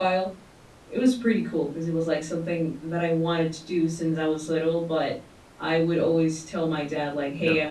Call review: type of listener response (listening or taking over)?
listening